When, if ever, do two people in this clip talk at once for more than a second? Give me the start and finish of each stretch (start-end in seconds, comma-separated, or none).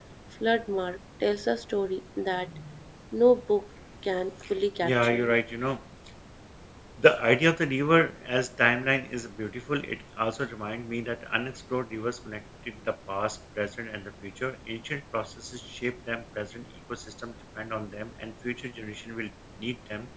none